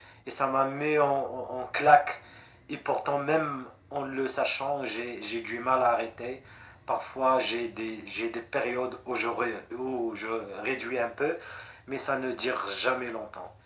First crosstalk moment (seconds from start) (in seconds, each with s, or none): none